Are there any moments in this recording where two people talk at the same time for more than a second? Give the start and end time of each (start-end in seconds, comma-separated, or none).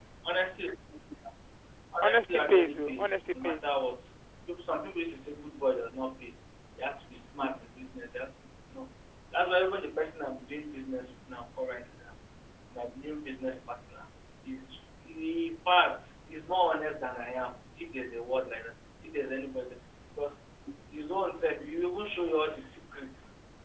2.0-3.8